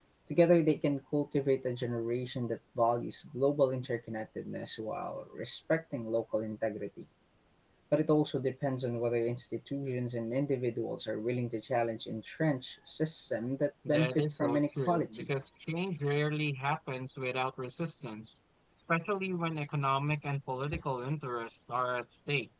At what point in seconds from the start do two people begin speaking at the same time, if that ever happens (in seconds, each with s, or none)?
13.8 s